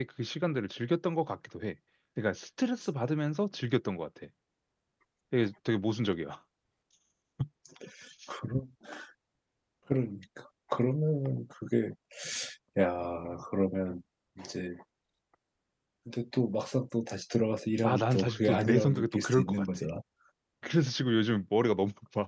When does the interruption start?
17.8 s

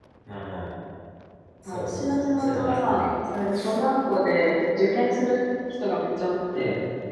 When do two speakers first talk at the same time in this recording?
1.7 s

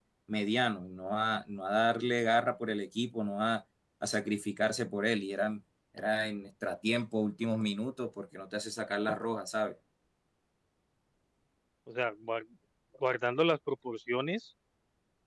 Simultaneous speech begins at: none

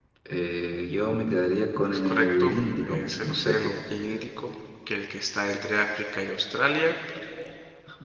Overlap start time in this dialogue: 2.0 s

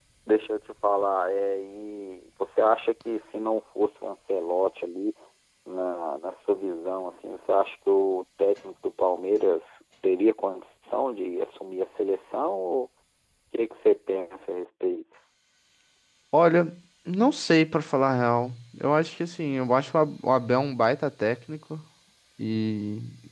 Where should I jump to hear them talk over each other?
none

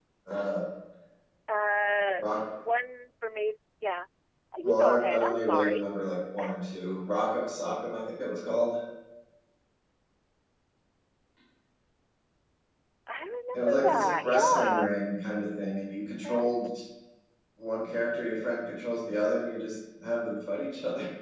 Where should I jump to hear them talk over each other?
4.6 s

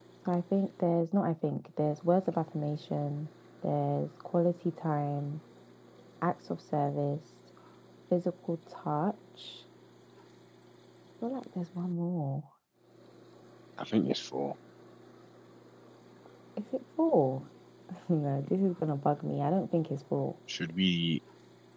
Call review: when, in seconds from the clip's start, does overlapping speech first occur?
none

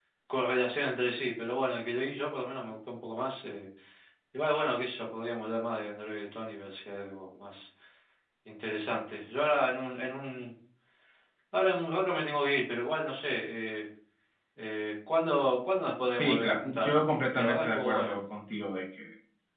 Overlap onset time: 16.2 s

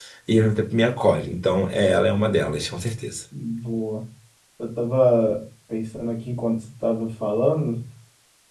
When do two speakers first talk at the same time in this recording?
none

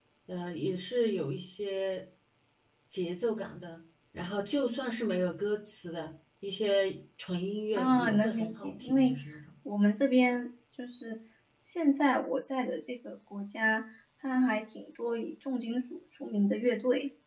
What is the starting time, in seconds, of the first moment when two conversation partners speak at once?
7.8 s

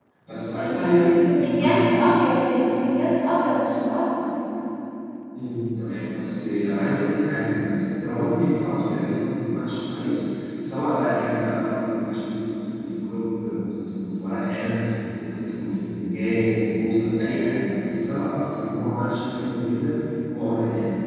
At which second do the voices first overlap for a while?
0.6 s

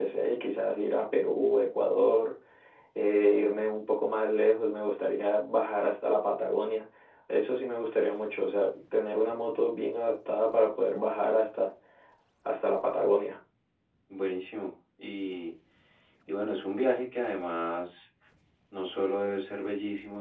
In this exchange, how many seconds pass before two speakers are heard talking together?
none

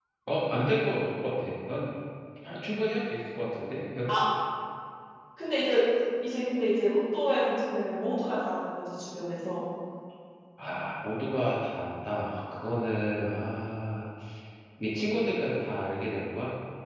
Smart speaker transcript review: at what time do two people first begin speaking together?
none

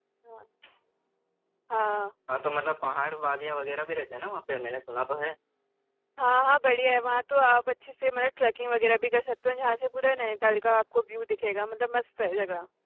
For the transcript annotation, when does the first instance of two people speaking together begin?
none

